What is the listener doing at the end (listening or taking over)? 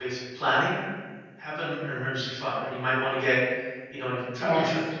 listening